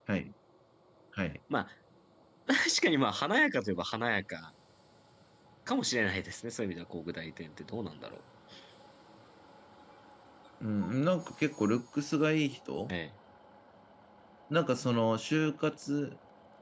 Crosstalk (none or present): none